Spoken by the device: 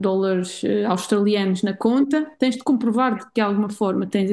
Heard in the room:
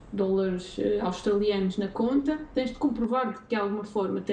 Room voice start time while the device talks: none

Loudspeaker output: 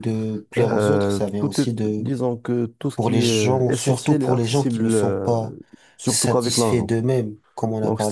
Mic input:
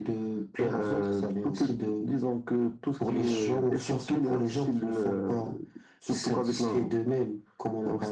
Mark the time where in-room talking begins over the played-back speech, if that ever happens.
none

